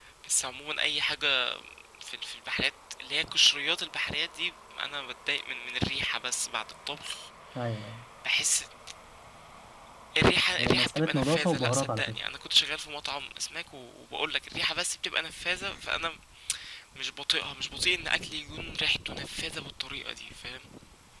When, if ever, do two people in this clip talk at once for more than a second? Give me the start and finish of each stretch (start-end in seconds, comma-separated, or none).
10.6-12.2